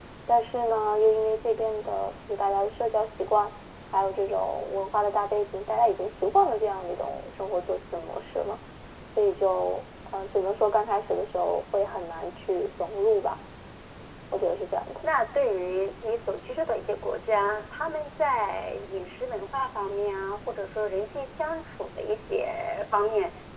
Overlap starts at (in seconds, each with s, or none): none